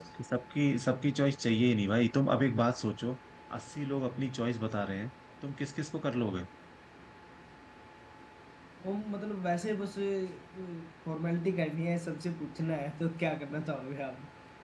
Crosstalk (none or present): none